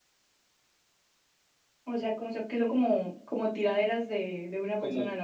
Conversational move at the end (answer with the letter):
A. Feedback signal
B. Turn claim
B